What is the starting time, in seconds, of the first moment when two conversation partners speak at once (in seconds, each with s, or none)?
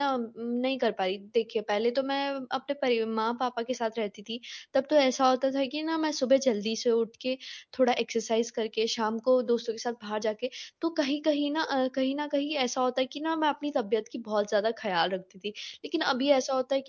none